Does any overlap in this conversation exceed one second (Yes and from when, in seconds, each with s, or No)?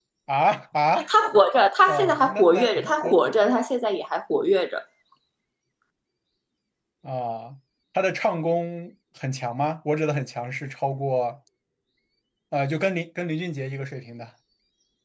Yes, from 1.9 s